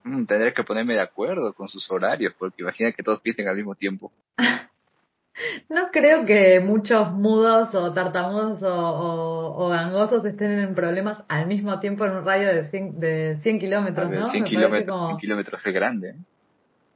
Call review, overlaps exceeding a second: present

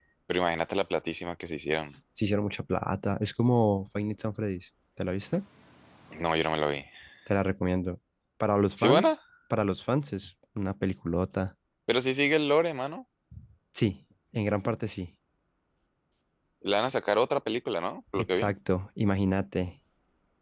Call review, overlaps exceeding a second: none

